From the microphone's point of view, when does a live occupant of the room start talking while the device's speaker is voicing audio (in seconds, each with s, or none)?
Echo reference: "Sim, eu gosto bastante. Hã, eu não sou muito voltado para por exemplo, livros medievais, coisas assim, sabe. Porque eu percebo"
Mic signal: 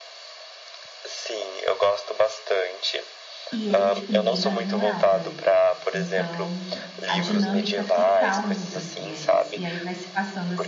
3.5 s